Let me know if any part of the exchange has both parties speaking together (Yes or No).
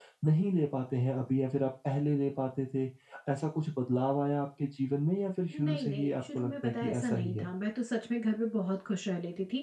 Yes